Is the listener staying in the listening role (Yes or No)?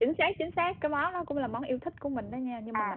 No